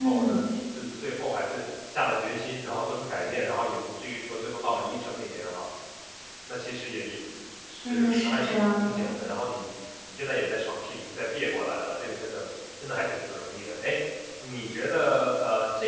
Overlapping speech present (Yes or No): Yes